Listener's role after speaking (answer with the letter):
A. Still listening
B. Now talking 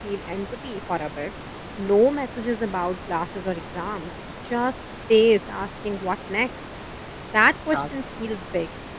A